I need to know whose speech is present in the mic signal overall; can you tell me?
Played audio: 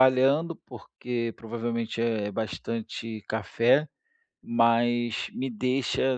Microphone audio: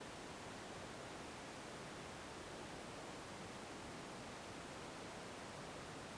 neither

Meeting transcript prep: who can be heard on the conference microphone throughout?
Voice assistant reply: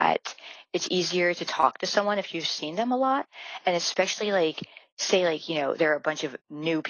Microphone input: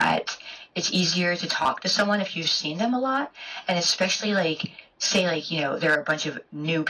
echo only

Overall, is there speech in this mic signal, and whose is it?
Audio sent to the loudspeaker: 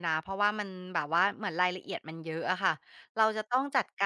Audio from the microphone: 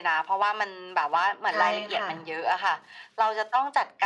both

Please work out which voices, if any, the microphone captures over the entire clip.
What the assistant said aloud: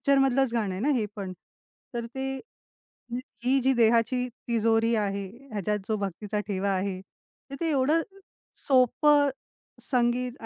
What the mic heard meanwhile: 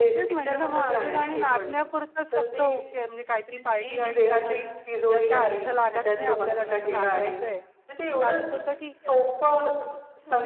both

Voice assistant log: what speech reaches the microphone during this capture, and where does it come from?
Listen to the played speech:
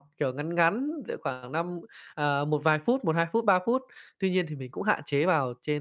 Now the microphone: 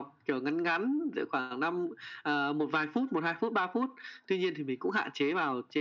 echo only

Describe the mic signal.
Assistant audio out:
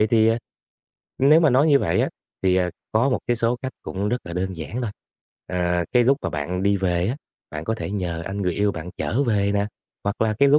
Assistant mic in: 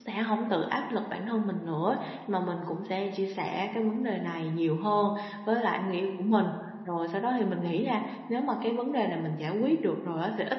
user only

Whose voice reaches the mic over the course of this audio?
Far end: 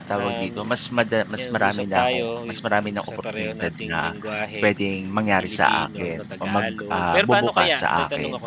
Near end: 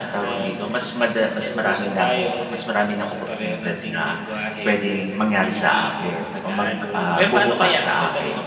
echo only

